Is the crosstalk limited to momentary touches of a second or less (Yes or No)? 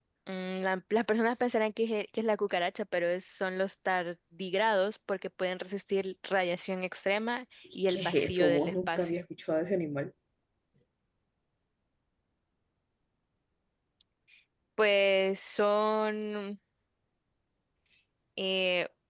No